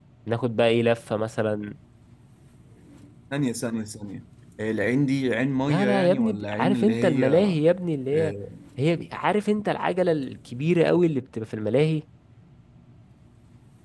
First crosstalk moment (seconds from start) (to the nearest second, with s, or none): 6 s